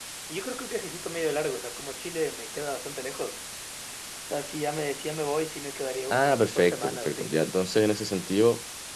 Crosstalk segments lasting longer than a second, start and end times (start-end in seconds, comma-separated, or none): 6.1-7.4